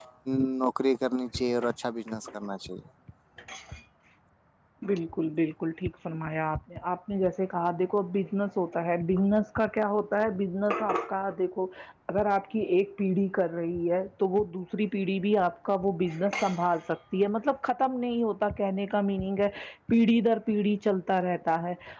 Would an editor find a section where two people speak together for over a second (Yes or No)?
No